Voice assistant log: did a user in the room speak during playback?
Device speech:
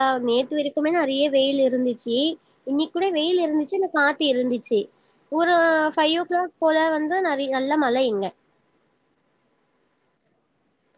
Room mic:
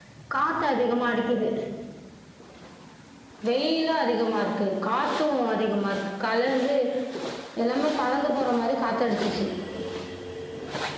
Yes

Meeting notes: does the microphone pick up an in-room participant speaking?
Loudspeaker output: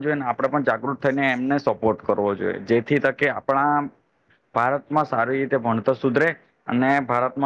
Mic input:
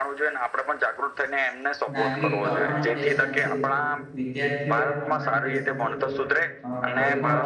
Yes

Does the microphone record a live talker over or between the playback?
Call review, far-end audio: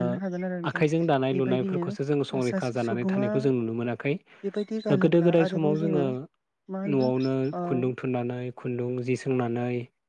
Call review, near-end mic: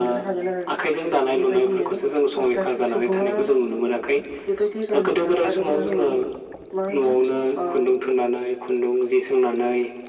Yes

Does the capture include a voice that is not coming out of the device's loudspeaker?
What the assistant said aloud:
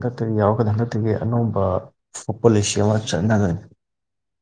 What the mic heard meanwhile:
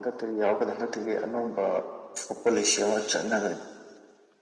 No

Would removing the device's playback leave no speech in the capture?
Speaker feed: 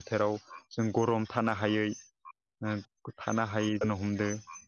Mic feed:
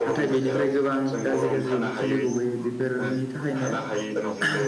No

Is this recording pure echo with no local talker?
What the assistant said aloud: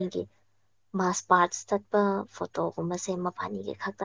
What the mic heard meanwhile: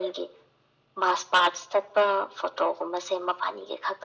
Yes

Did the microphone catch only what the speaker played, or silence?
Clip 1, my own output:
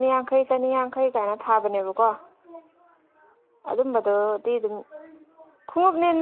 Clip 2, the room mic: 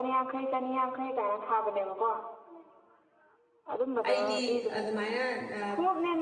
No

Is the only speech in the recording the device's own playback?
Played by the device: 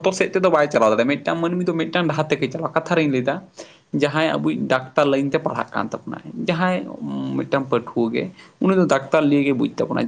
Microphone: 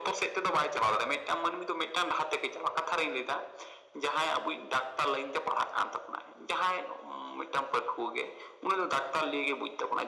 Yes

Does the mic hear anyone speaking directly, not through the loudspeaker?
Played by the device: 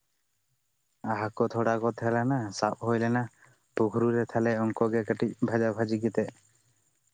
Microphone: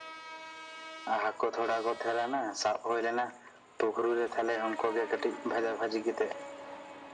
No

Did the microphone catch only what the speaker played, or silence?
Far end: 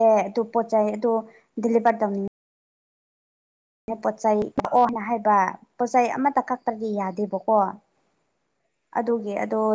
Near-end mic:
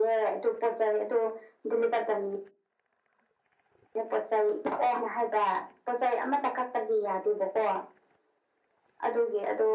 Yes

